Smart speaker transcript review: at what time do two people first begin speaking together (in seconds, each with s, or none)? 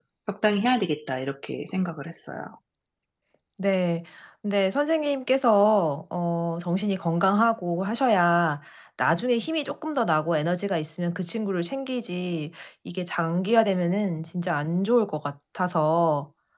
none